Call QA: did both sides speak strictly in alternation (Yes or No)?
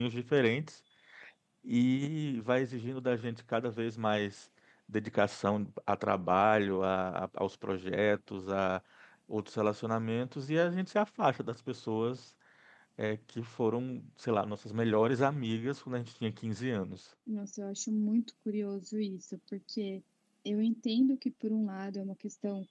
Yes